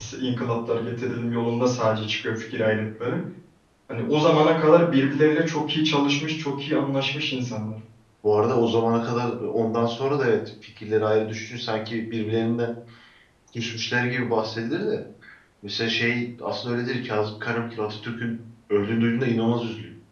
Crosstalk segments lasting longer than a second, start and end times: none

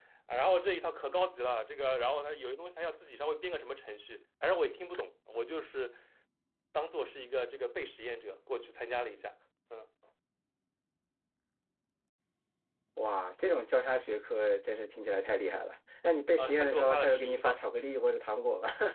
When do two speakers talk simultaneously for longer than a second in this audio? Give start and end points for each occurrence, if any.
16.4-17.7

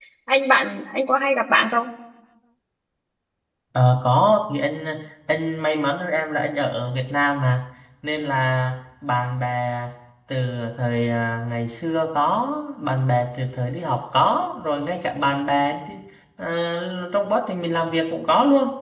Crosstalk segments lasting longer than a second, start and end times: none

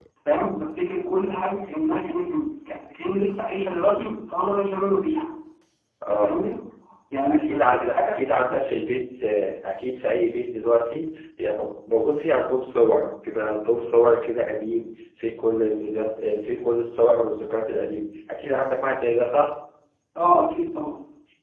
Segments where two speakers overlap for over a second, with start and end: 7.3-8.6

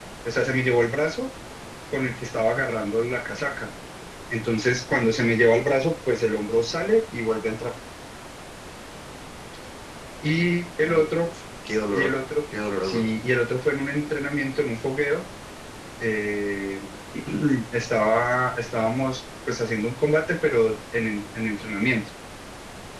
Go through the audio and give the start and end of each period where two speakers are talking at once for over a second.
none

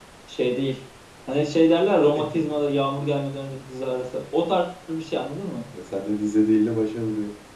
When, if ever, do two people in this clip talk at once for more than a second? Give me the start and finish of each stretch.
none

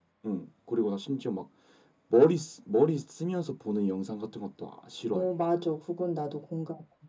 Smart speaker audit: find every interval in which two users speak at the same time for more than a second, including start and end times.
none

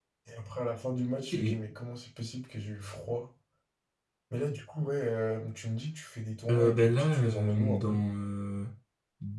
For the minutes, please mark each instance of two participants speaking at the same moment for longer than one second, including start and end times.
6.5-8.0

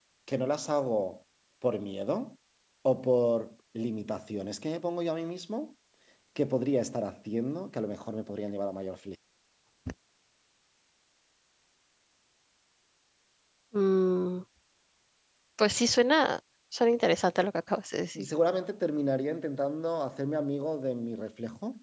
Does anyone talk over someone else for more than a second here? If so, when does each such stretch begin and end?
none

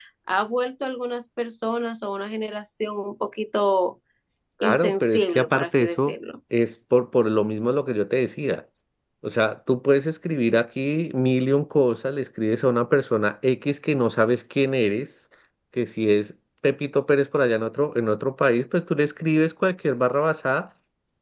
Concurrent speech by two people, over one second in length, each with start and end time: 4.6-6.1

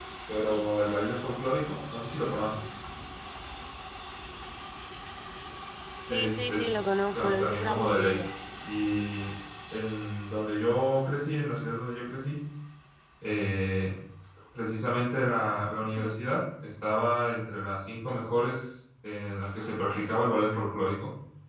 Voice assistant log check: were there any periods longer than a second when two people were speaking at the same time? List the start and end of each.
6.1-8.2

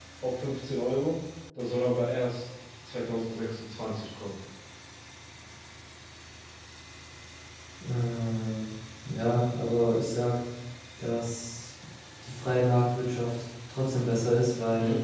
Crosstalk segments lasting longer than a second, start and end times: none

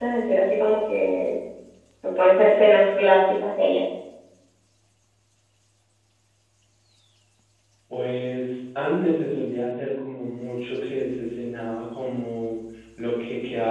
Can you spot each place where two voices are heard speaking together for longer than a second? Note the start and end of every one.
none

